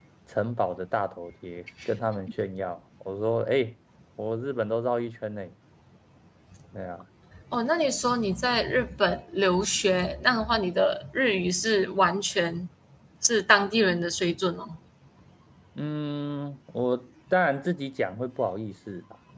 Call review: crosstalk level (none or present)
none